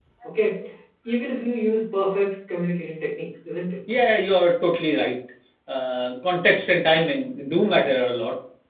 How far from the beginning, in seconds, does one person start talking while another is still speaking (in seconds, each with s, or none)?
none